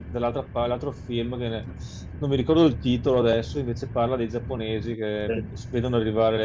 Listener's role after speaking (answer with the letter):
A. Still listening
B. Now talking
A